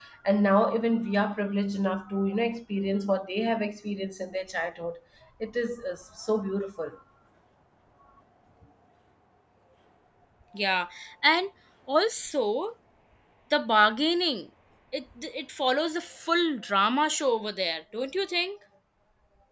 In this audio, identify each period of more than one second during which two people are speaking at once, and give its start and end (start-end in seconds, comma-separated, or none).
none